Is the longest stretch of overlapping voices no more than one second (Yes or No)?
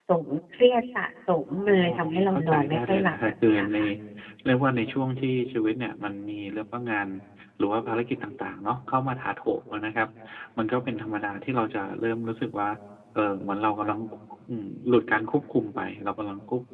No